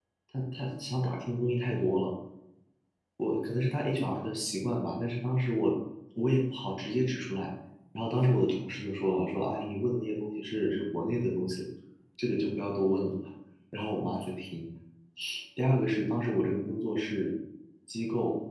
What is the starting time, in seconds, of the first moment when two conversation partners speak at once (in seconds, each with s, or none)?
none